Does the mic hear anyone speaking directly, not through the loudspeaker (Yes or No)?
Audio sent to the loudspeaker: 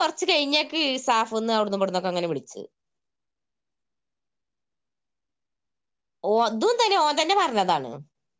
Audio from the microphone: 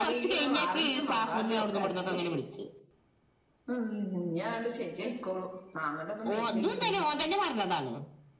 Yes